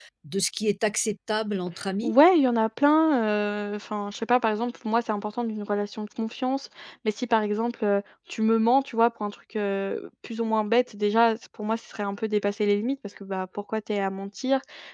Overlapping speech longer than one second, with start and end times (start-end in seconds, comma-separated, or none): none